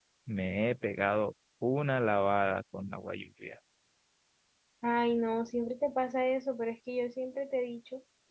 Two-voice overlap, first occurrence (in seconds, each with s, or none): none